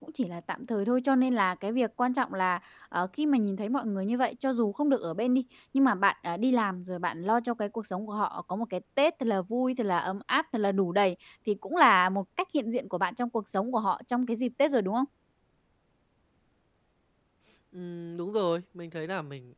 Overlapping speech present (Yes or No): No